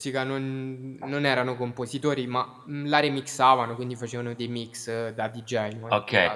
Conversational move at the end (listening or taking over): taking over